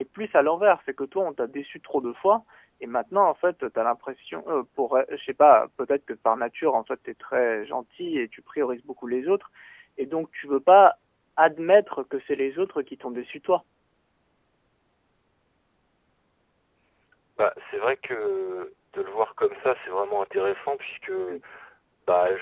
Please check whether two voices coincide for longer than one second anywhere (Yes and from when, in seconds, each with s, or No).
No